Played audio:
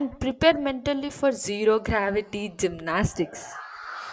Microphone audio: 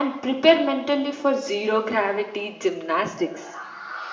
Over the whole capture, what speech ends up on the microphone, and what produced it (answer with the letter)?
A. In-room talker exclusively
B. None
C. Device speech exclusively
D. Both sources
C